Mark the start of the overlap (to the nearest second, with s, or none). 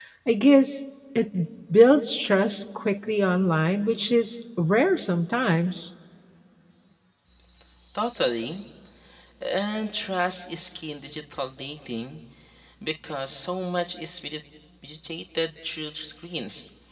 none